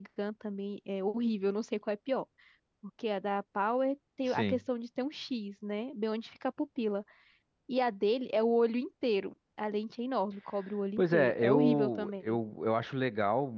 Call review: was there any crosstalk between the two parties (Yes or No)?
Yes